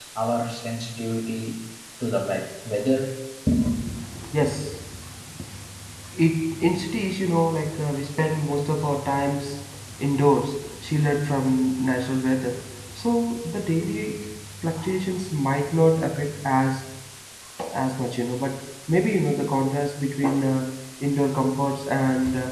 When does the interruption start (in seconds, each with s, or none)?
none